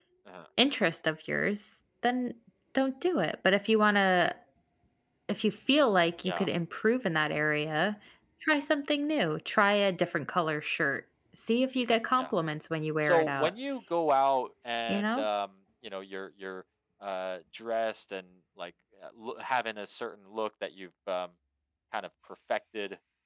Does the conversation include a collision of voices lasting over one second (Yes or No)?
No